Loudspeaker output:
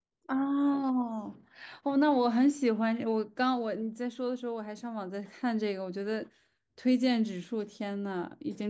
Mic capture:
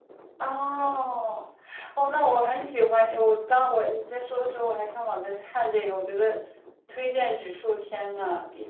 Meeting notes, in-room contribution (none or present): none